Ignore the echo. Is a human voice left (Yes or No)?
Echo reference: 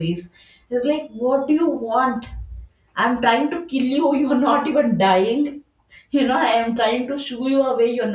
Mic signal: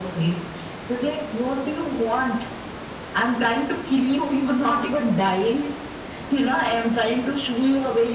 No